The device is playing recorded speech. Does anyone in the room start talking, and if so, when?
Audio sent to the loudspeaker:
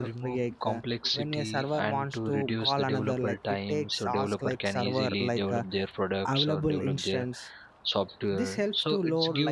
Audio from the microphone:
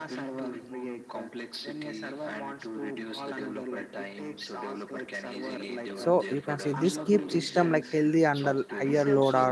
6 s

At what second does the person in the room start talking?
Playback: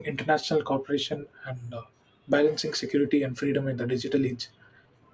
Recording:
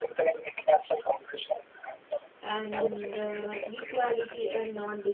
2 s

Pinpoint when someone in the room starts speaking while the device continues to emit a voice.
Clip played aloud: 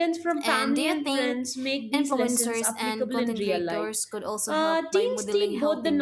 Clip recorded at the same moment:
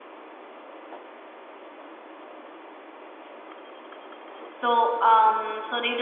4 s

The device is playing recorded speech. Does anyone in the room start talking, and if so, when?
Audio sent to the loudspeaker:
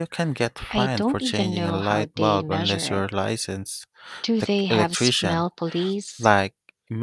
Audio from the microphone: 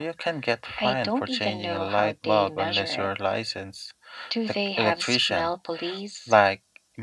none

